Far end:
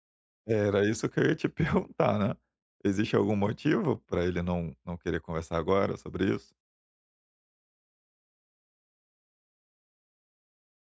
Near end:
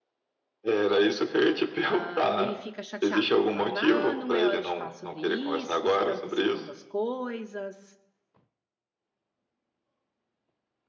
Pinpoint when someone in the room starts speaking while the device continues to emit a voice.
1.8 s

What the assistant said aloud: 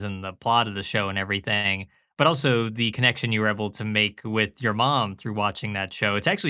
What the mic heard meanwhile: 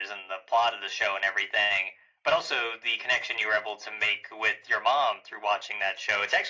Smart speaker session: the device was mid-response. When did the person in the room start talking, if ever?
none

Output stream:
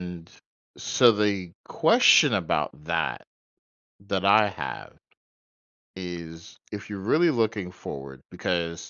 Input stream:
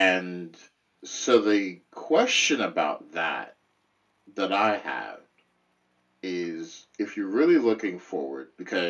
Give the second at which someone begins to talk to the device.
none

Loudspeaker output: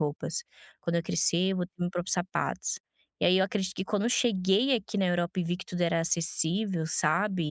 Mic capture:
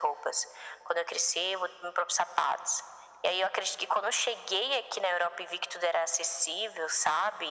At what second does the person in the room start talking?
none

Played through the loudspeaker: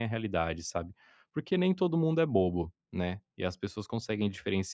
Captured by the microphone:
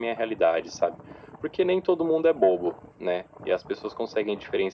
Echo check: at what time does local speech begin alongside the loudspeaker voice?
none

